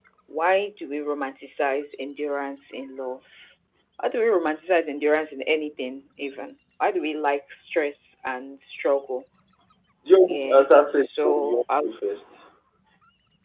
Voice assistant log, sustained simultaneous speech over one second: present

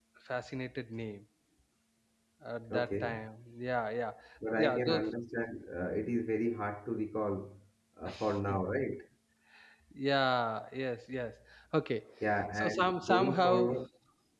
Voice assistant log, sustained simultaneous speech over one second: present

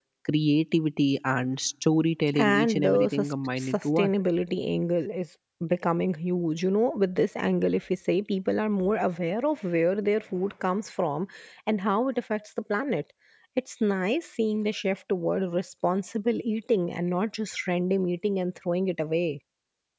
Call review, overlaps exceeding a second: present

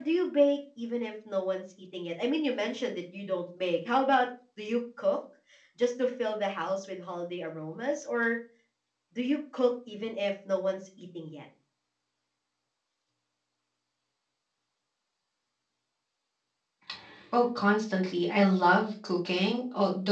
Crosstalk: none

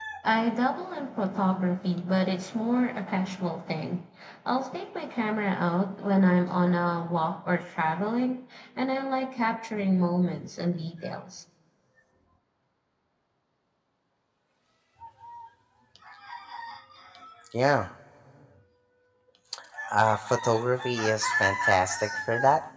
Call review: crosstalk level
none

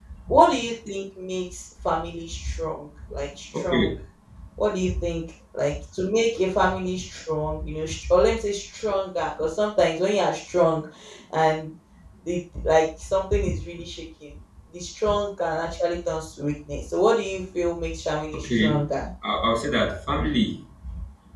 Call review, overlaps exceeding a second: none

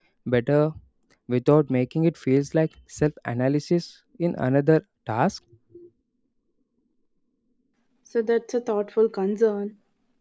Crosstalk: none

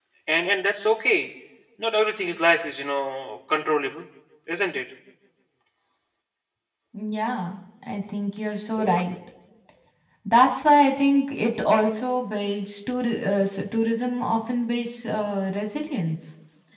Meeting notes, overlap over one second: none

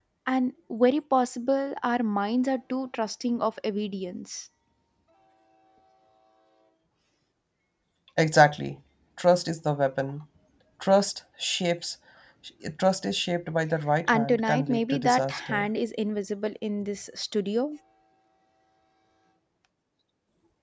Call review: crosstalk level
present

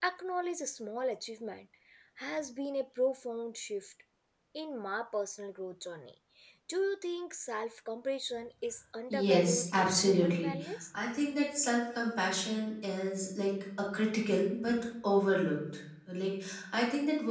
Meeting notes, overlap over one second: present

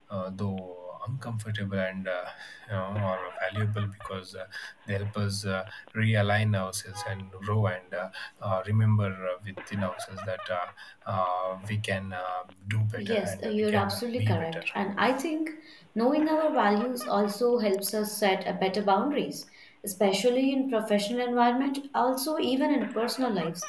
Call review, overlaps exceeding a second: present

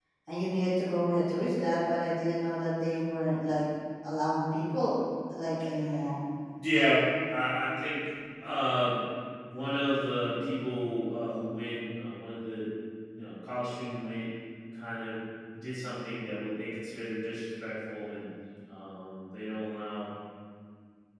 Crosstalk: none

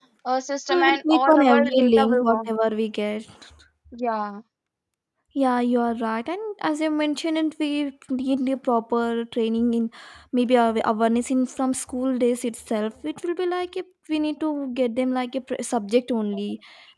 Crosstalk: present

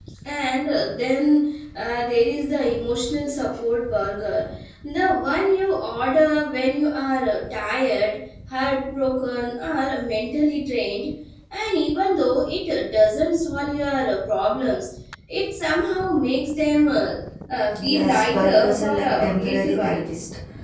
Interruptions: present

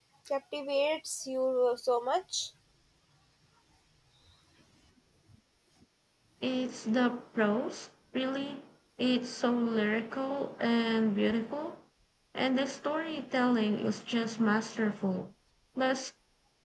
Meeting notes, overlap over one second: none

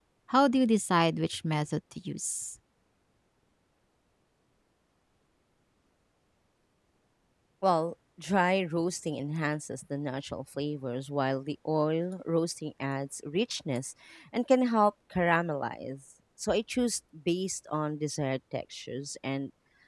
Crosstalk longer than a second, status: none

